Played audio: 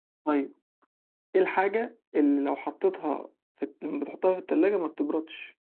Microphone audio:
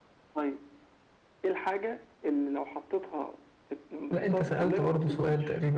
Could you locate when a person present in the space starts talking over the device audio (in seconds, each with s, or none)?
4.1 s